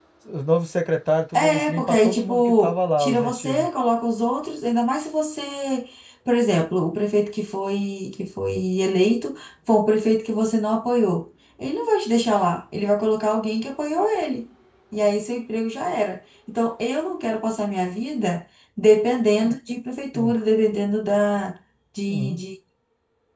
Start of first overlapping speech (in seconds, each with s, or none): 1.3 s